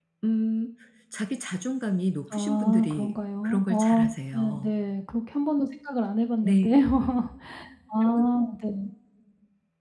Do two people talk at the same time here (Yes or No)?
Yes